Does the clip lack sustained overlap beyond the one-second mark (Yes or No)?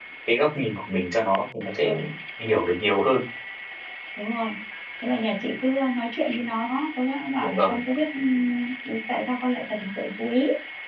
Yes